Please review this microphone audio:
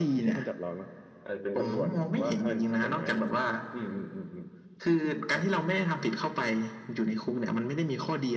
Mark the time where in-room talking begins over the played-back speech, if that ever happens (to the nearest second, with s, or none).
none